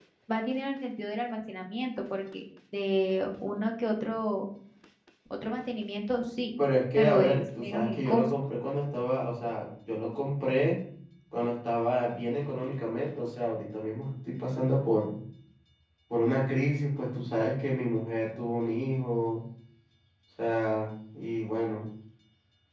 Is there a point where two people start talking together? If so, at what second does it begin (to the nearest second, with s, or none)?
7 s